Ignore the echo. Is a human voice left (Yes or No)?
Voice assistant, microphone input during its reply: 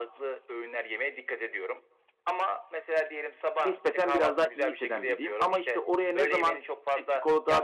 Yes